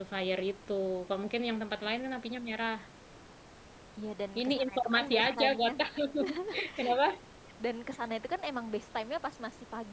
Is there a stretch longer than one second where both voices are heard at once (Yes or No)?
Yes